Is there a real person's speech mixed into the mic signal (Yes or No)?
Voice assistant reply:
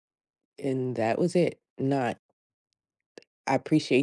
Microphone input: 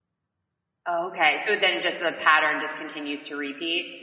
Yes